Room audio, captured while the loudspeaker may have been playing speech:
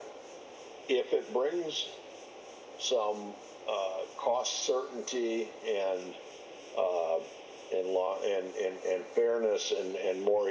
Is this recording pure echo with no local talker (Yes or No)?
Yes